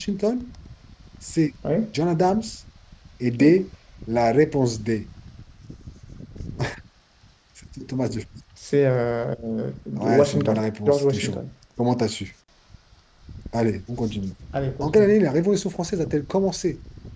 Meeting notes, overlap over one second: present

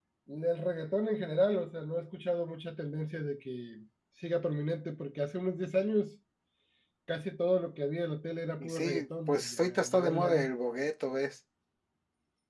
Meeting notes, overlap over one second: present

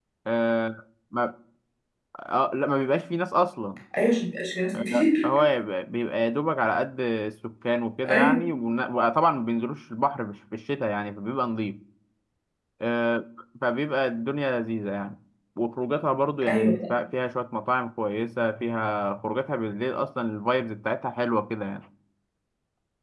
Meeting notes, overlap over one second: none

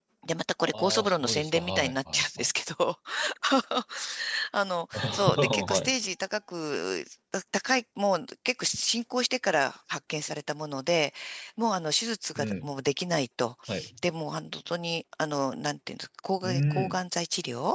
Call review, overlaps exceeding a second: present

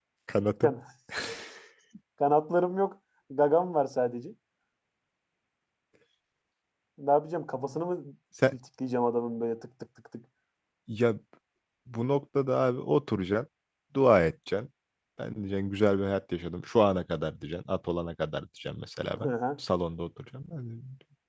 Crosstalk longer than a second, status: none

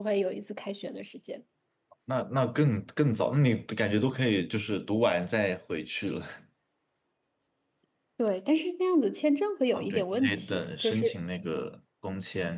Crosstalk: present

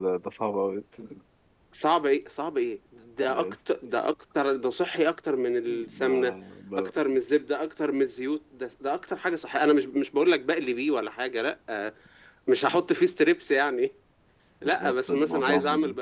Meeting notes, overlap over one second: present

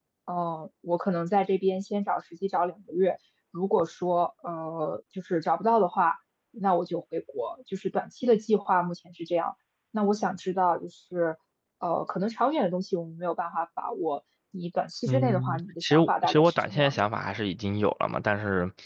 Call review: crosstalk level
present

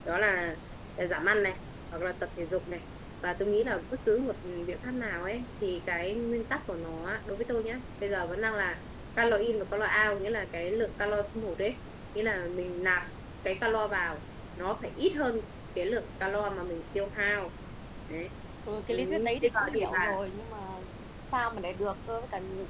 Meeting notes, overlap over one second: present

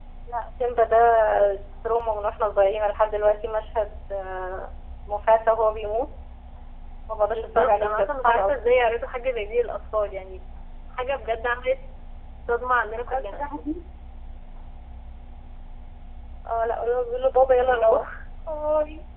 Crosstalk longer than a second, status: present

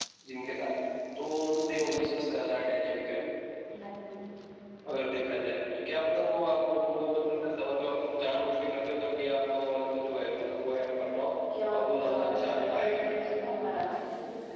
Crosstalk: present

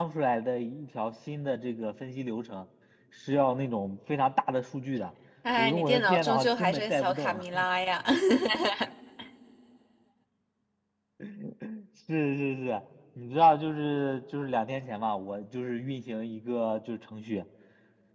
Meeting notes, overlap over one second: present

